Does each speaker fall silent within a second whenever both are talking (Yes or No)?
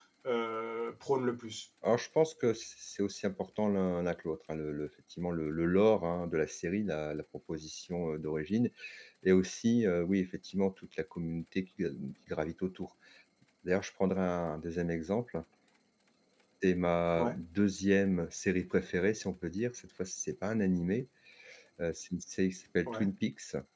Yes